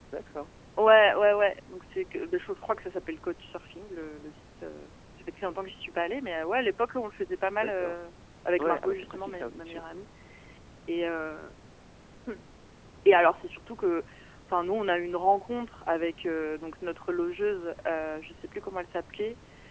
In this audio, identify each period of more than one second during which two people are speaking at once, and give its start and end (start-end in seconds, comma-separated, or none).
8.6-9.8